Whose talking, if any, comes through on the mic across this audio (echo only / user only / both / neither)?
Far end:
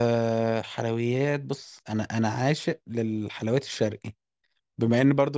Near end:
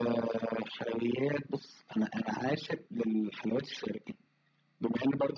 echo only